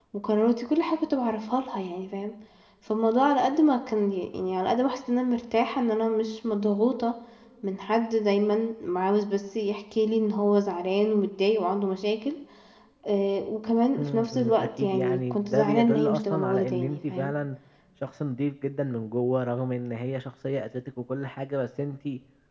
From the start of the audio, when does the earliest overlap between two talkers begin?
13.9 s

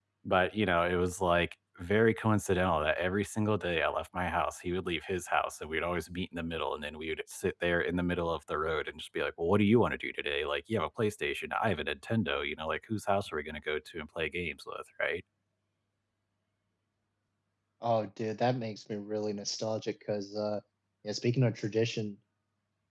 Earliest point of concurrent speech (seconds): none

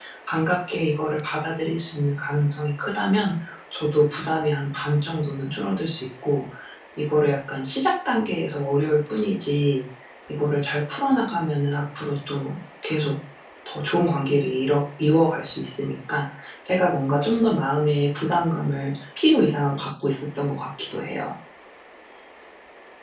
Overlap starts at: none

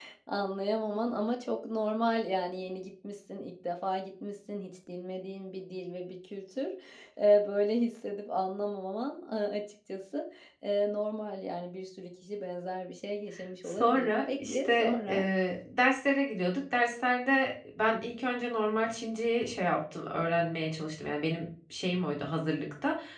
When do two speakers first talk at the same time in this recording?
13.6 s

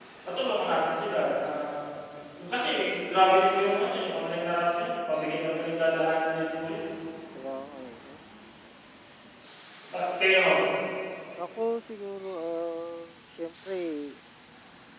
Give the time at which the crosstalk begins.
none

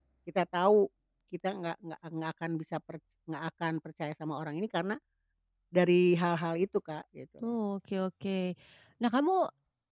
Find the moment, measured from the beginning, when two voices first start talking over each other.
none

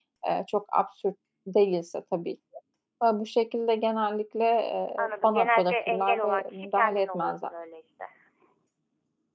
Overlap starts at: 5.0 s

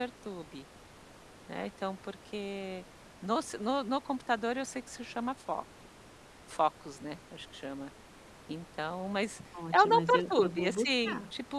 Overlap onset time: 9.5 s

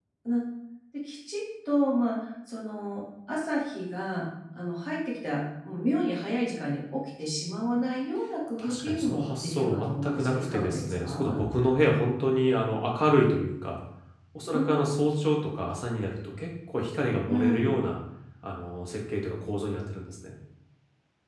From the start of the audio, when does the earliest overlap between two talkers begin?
8.6 s

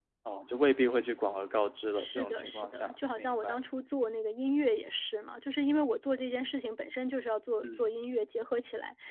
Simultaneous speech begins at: 2.0 s

